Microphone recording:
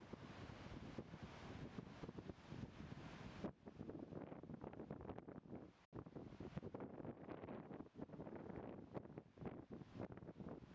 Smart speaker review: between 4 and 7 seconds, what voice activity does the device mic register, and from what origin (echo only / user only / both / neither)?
neither